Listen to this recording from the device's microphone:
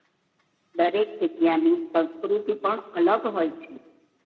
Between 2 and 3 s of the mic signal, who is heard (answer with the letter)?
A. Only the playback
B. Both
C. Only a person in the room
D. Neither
A